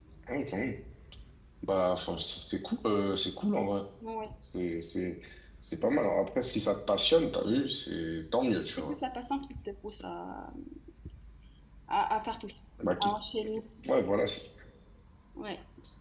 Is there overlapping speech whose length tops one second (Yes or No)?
No